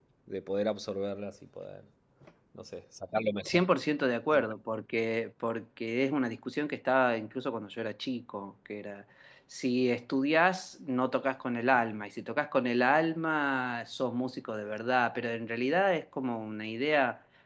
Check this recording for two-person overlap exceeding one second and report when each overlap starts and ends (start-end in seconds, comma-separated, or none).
none